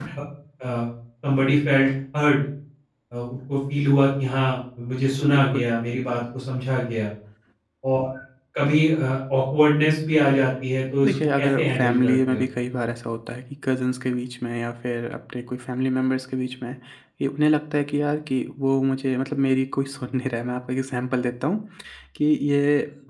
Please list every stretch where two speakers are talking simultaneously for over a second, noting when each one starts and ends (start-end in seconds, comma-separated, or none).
11.0-12.4